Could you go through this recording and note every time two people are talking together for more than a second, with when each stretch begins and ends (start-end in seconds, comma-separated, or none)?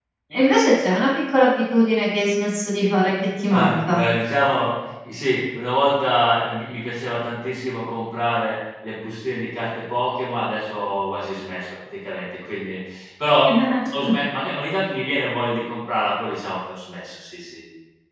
none